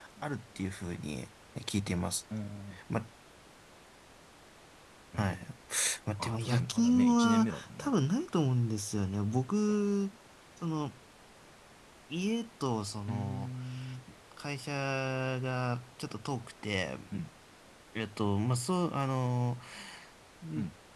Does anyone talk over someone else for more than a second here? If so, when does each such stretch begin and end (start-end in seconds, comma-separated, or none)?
6.2-7.9